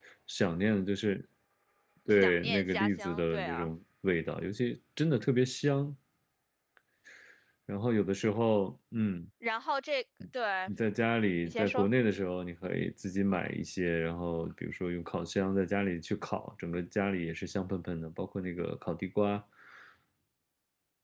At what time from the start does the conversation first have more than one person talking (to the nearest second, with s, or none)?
2 s